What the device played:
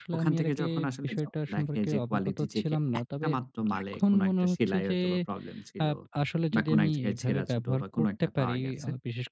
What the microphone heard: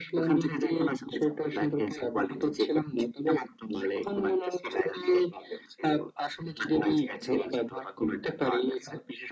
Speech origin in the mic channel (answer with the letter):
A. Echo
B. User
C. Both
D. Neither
A